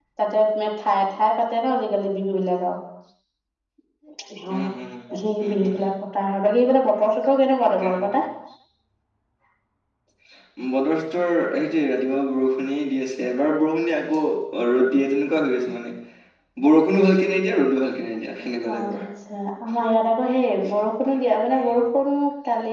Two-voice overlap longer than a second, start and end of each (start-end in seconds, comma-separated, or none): none